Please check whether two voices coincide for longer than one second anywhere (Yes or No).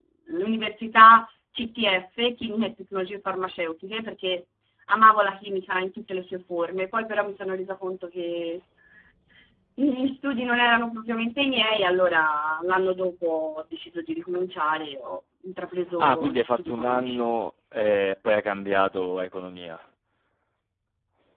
Yes